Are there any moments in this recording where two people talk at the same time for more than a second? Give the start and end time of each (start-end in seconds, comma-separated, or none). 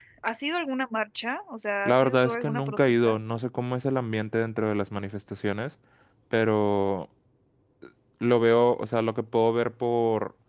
1.8-3.2